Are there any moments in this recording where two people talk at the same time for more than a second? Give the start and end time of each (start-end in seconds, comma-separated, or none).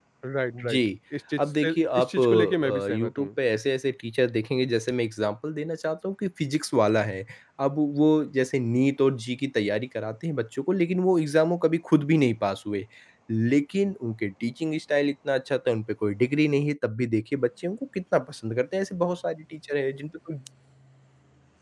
1.4-3.3